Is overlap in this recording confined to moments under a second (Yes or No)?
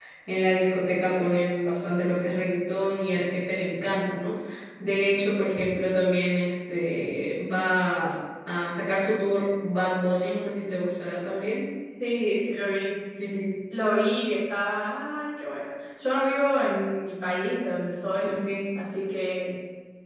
Yes